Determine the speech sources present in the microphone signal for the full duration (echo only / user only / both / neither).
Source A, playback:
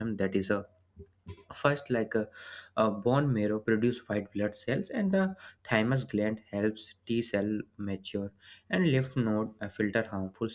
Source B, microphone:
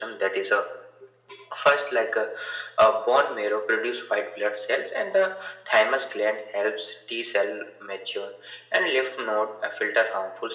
echo only